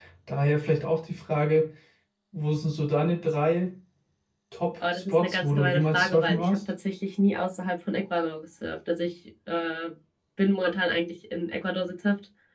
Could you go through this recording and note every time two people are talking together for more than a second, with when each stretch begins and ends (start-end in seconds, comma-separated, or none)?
4.9-6.6